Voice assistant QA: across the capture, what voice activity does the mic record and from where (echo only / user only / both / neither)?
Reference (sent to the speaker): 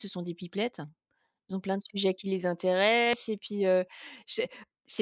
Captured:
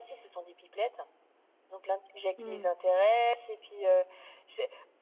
both